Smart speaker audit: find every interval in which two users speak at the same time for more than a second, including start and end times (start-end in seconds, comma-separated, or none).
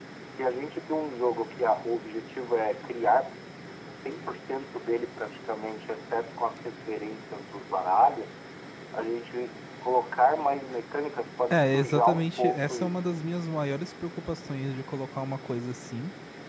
11.5-13.1